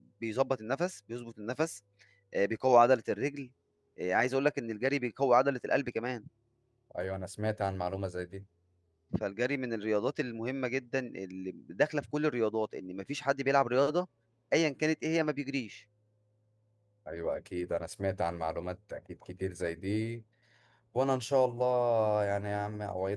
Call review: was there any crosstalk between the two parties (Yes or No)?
No